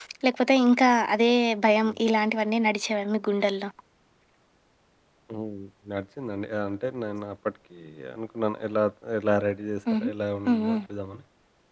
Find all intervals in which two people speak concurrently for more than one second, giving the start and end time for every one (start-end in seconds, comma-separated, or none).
none